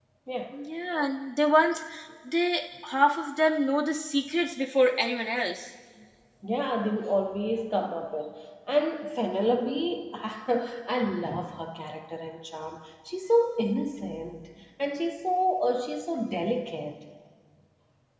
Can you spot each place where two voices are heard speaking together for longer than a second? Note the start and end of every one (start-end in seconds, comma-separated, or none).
none